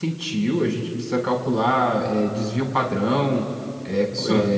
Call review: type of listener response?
listening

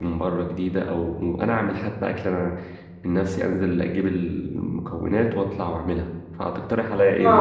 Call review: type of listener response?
taking over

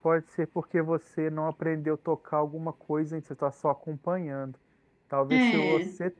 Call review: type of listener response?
listening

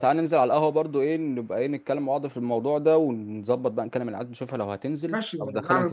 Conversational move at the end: taking over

